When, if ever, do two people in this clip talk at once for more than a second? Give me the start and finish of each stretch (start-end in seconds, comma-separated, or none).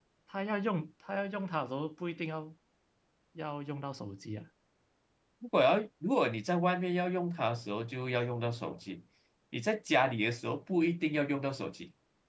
none